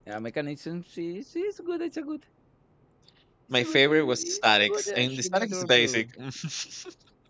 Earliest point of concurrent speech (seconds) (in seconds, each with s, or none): 3.6 s